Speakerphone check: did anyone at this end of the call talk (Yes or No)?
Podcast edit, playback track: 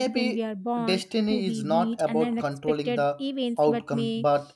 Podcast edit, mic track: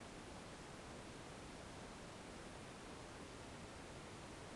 No